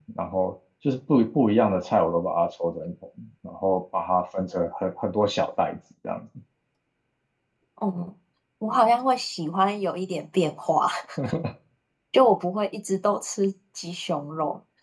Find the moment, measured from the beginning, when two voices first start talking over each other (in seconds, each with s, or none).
none